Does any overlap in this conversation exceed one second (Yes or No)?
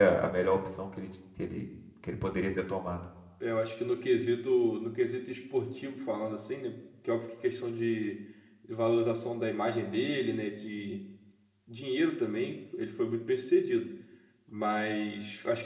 No